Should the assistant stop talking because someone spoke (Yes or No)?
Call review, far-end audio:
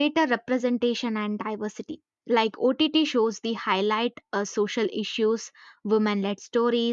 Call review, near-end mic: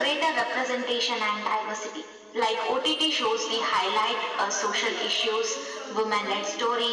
Yes